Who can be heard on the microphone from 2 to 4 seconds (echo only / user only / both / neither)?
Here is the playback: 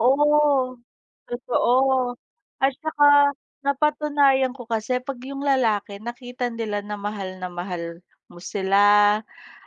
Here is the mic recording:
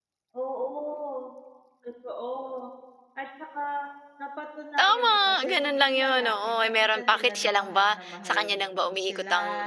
echo only